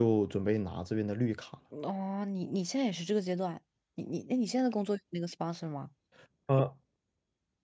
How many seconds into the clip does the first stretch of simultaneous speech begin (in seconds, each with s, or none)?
none